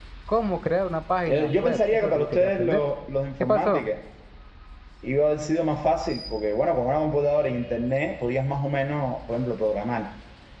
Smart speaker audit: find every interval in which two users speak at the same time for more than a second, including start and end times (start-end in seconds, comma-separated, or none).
1.3-2.8